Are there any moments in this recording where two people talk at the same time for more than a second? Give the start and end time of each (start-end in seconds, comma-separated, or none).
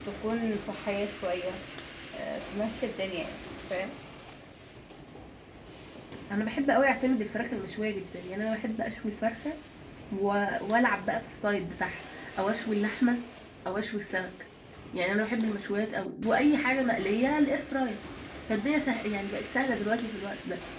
none